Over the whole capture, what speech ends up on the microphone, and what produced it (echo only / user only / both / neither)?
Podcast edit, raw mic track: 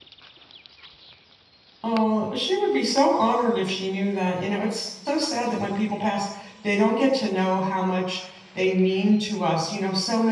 user only